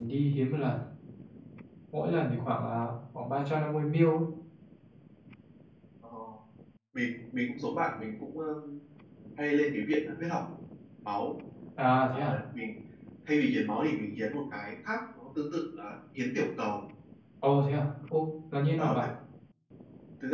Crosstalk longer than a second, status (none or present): none